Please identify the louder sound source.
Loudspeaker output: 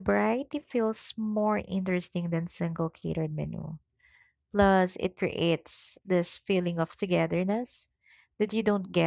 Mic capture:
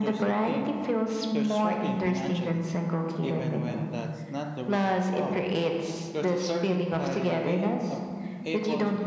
echo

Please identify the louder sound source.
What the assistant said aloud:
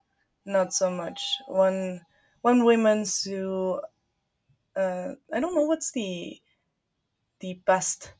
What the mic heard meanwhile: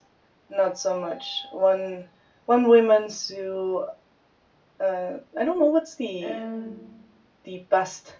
echo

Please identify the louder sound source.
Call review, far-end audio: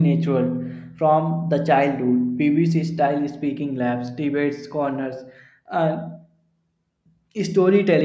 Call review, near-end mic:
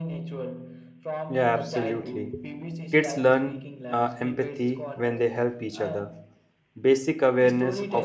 user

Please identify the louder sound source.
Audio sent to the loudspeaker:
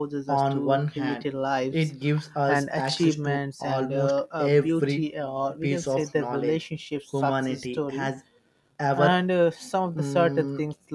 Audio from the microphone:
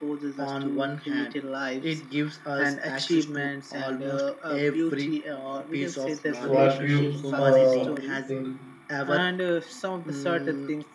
user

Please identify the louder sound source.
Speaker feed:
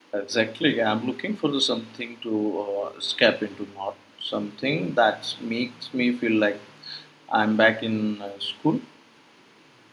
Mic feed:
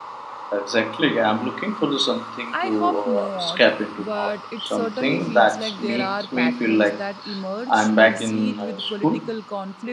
echo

